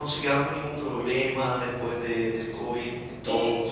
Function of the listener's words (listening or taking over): taking over